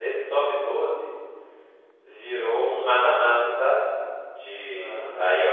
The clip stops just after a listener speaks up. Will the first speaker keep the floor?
Yes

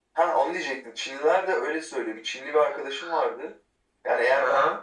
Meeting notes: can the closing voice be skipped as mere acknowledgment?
Yes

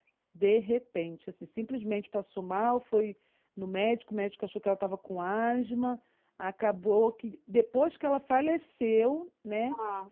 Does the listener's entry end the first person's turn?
No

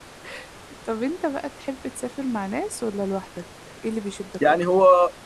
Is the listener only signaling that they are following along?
No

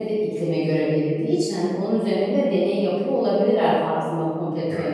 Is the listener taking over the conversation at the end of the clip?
Yes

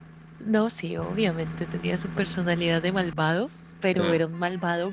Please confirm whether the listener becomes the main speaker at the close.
No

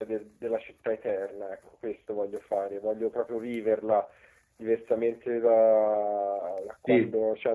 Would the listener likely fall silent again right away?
Yes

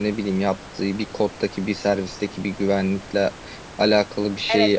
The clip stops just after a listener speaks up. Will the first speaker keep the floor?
No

